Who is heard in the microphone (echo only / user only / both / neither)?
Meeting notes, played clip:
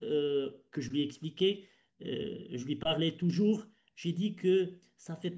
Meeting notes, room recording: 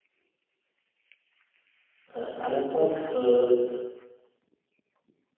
user only